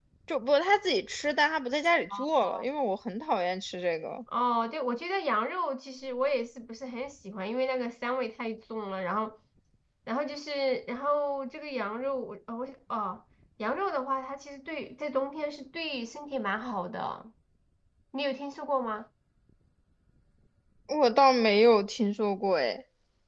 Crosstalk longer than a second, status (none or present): none